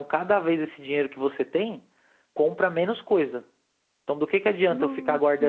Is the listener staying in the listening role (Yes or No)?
Yes